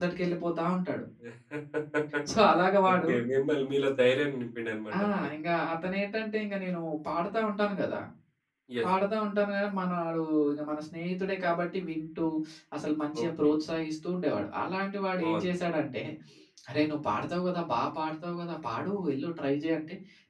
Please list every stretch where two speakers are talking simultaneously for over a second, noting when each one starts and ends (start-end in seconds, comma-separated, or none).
none